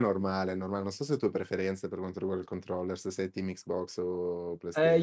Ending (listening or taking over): taking over